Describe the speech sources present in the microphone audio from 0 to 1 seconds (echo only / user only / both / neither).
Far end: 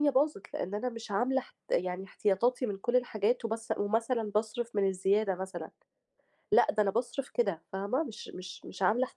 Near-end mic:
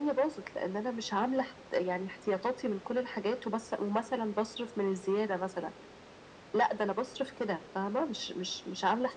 echo only